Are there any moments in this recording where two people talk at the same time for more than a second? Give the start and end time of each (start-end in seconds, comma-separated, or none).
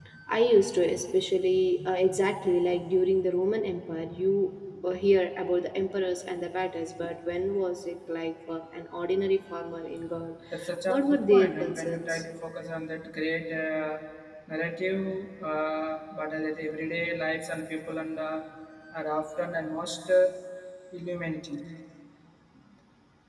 10.9-12.2